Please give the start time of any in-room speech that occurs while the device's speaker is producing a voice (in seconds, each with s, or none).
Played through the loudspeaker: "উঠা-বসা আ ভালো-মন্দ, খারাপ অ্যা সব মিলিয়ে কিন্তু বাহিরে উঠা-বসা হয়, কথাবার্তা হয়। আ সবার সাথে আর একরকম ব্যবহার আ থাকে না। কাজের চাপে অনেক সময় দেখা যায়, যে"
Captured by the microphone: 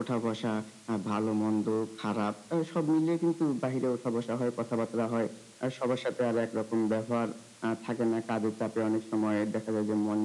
none